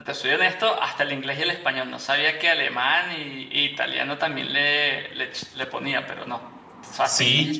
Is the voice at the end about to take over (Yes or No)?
Yes